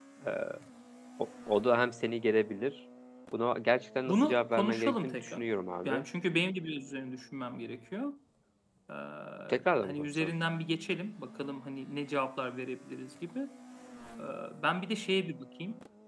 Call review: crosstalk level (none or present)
present